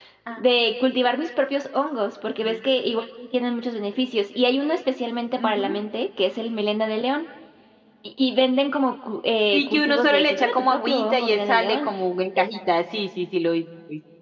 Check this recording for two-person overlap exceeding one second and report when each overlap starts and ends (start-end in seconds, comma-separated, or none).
9.5-11.9